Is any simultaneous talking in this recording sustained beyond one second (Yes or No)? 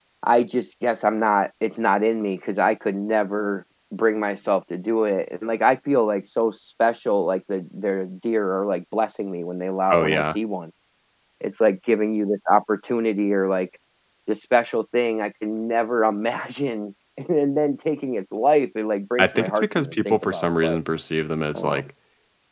Yes